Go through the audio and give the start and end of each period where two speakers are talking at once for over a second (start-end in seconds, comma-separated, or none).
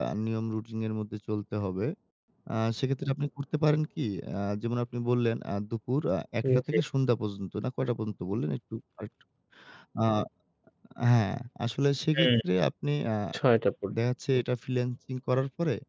none